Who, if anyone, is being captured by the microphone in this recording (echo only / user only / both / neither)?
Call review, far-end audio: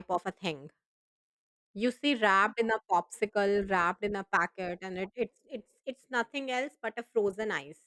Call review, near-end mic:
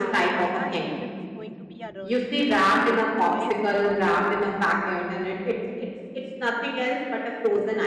both